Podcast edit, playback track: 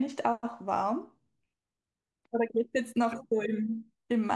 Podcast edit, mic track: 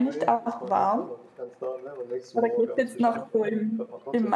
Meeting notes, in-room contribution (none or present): present